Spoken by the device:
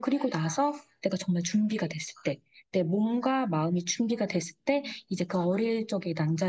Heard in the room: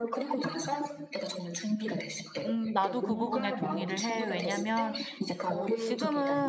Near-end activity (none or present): present